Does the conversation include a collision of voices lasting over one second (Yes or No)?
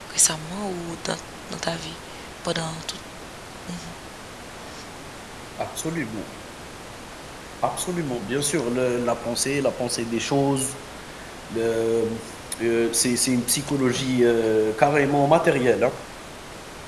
No